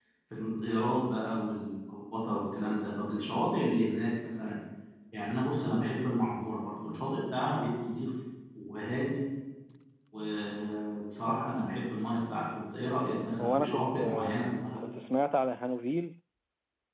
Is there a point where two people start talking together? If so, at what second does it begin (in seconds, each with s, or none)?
13.4 s